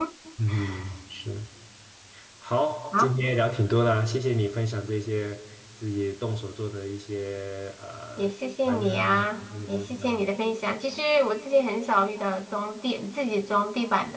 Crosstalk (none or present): present